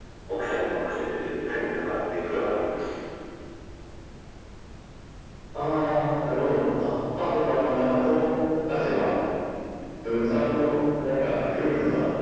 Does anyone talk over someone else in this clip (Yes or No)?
No